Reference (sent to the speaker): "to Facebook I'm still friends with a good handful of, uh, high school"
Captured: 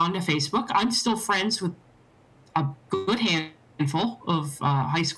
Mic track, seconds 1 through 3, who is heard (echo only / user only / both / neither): echo only